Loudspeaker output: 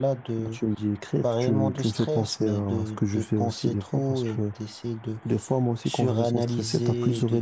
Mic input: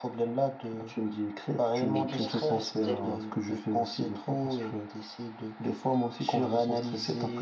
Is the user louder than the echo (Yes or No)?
No